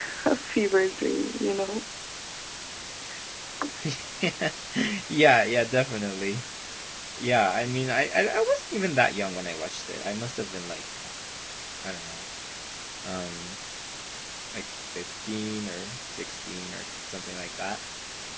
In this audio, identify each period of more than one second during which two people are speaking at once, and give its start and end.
none

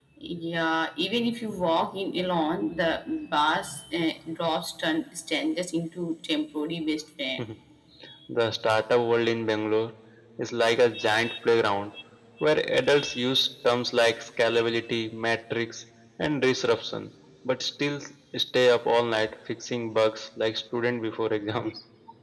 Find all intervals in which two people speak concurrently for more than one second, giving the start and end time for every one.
none

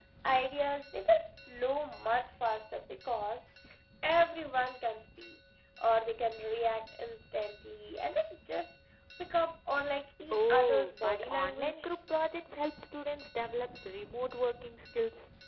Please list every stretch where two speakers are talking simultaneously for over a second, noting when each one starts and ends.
10.3-11.9

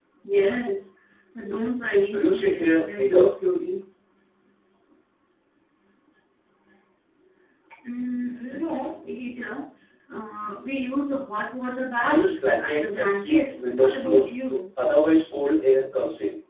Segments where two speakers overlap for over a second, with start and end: 2.1-3.3, 12.6-14.3

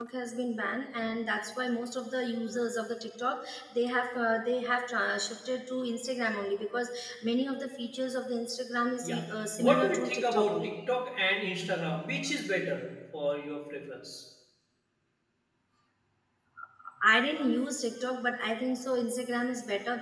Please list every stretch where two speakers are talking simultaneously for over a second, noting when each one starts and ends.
9.0-10.7

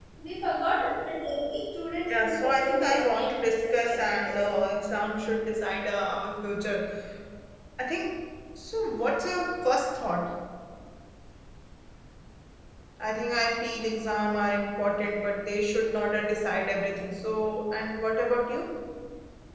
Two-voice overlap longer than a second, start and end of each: 2.1-4.4

